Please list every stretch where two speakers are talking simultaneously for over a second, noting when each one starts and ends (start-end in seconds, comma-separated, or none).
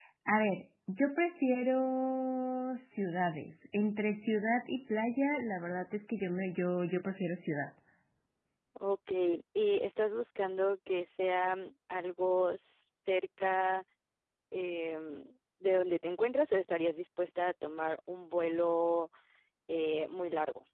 none